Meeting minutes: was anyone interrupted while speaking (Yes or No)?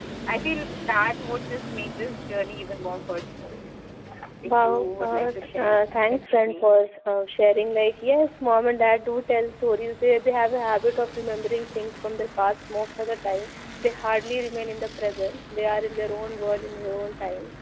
Yes